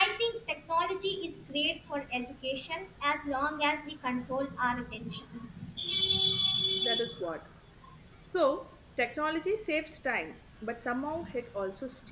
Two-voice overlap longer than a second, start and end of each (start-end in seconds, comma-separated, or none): none